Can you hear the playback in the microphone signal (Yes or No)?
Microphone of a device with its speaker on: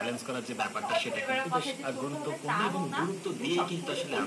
Yes